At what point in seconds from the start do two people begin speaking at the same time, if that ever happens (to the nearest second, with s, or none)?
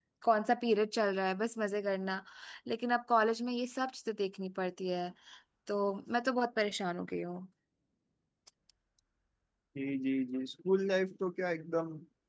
none